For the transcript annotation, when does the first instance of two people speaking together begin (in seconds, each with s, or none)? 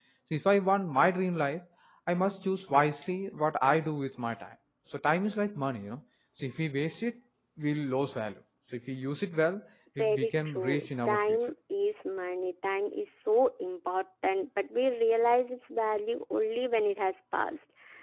10.0 s